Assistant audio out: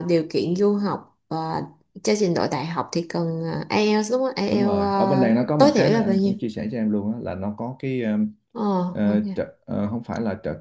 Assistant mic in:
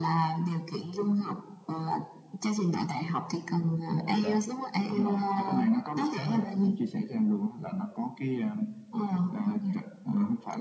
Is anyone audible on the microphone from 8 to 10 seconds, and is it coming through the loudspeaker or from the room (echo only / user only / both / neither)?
echo only